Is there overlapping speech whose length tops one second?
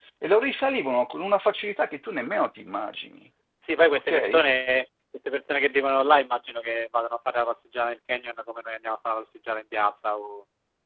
No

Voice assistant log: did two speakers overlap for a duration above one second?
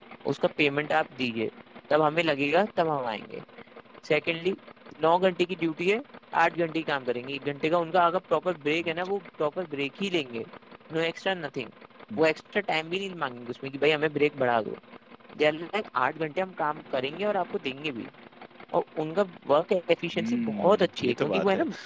Yes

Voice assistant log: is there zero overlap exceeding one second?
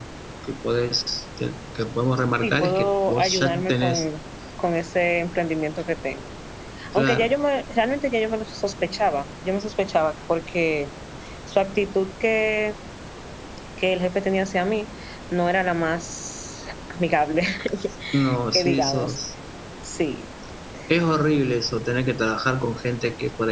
No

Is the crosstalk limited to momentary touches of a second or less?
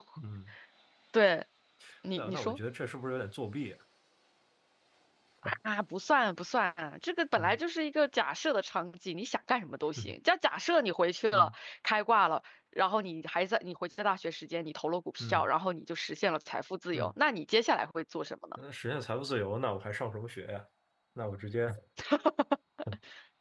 Yes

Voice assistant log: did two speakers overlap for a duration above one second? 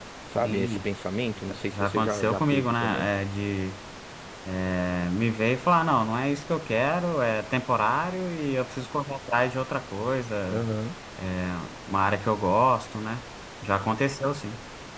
Yes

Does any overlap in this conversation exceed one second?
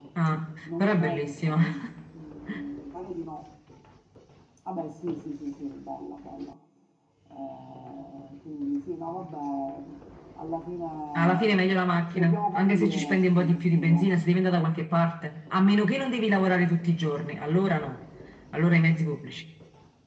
Yes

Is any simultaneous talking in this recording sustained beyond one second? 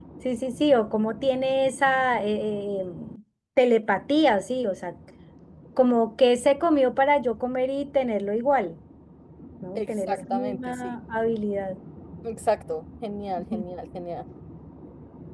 Yes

